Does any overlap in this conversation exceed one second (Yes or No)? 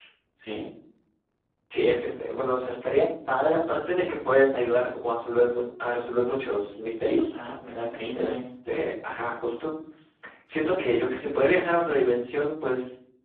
No